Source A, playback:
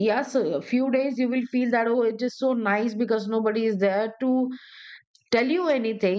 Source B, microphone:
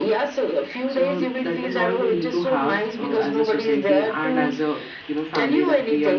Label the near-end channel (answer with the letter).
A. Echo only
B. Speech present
B